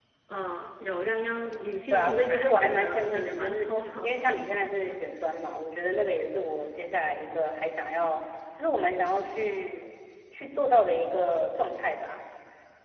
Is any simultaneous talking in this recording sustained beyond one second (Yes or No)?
Yes